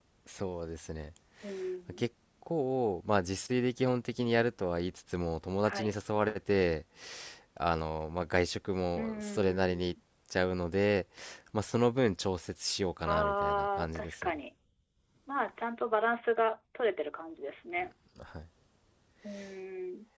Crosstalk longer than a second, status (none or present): present